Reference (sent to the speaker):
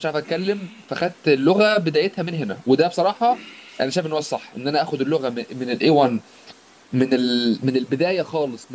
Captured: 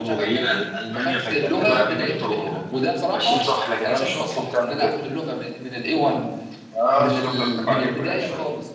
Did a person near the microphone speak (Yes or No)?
Yes